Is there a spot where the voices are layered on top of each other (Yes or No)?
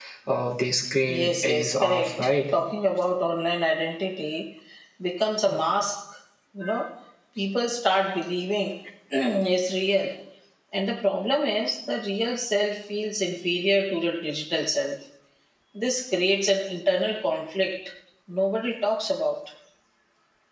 Yes